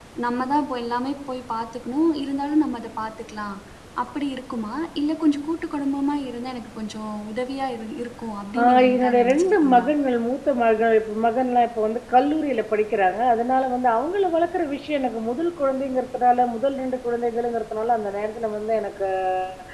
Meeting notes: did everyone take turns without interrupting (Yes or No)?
No